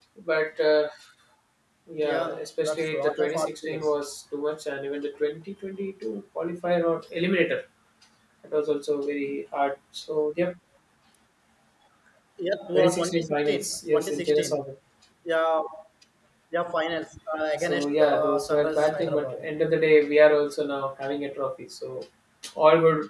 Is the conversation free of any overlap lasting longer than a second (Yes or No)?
No